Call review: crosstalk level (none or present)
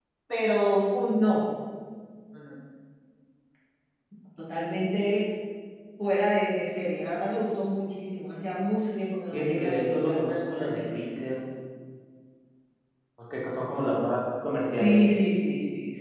present